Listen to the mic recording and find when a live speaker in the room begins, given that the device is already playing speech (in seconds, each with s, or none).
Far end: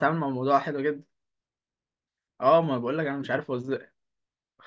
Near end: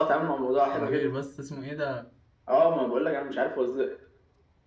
0.7 s